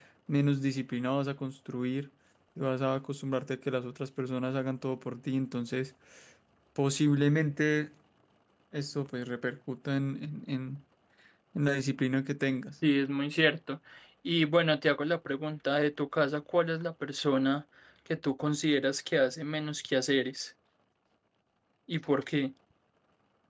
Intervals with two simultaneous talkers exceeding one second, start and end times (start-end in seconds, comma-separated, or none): none